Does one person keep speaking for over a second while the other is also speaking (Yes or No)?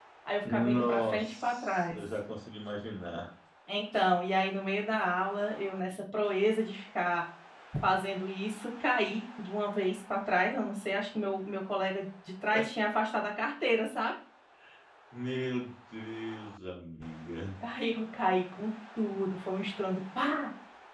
Yes